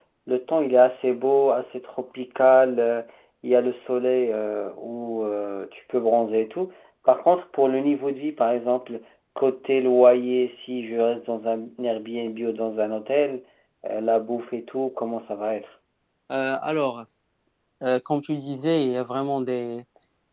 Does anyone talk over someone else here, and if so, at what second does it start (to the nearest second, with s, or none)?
none